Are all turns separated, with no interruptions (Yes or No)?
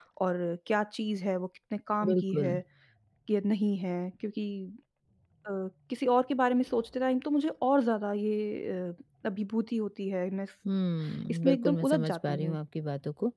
No